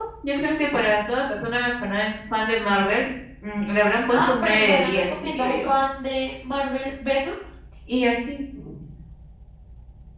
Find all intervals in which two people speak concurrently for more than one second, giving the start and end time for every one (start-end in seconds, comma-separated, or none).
4.1-5.7